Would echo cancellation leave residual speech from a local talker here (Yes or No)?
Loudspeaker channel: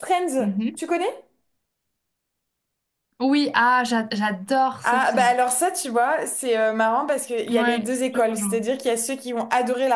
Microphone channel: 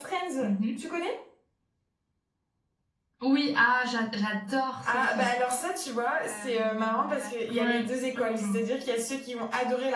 Yes